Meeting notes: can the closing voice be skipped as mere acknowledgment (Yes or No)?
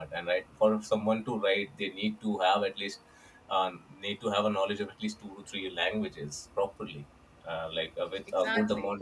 Yes